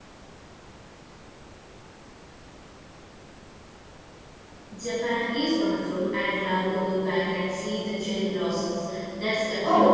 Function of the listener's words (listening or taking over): taking over